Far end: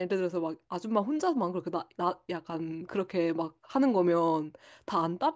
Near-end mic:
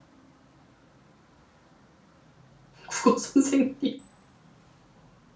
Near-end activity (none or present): present